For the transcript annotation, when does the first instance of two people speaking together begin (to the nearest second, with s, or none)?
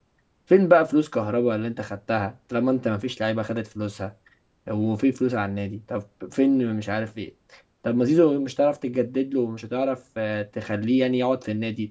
none